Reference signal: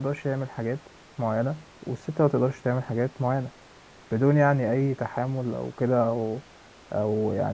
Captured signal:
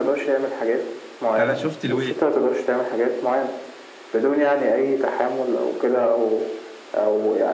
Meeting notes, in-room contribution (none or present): present